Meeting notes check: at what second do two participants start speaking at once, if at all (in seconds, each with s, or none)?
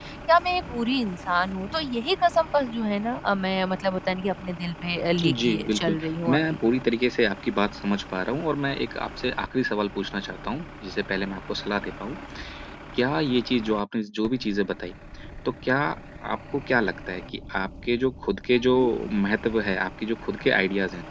5.2 s